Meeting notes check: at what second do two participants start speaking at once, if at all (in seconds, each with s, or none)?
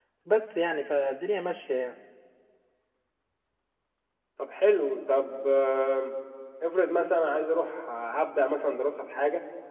none